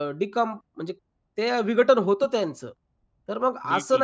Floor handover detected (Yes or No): No